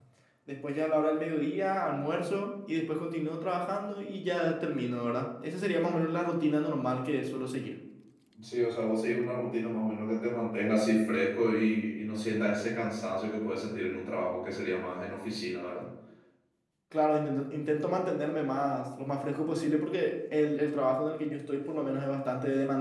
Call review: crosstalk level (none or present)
none